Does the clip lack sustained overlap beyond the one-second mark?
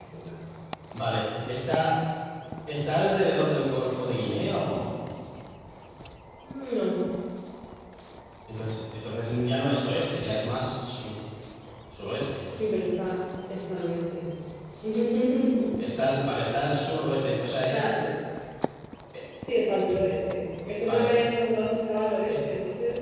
Yes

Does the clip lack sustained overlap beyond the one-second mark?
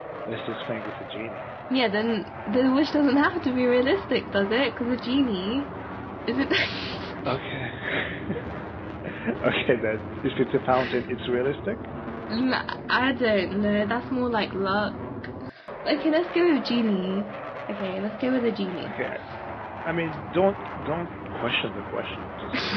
Yes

